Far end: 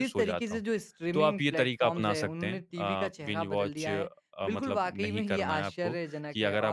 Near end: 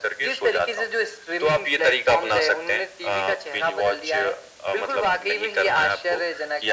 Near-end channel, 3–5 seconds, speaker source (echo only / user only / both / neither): echo only